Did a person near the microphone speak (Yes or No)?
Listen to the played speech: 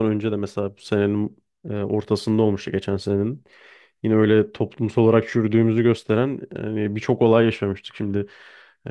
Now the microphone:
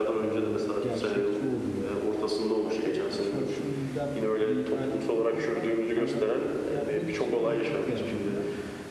Yes